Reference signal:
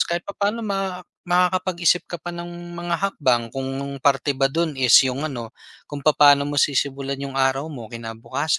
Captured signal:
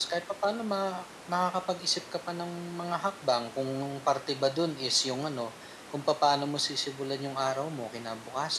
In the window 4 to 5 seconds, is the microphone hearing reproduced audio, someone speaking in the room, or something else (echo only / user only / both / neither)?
echo only